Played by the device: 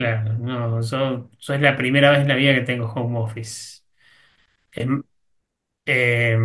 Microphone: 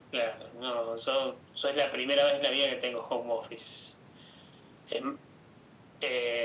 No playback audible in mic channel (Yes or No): No